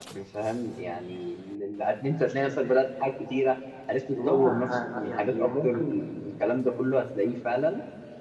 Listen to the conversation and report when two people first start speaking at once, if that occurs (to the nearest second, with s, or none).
4 s